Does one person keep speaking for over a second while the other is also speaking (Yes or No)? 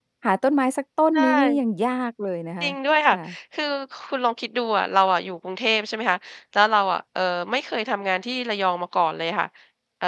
No